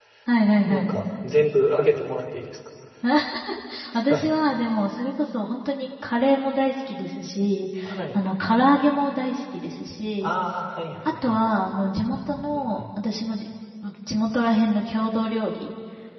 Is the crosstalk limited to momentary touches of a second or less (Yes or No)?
Yes